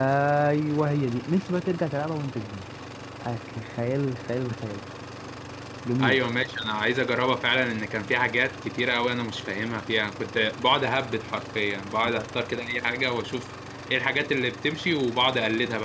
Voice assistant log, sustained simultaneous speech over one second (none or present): none